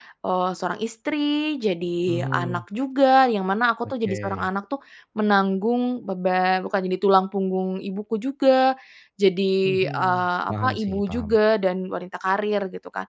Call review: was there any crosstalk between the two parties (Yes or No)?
Yes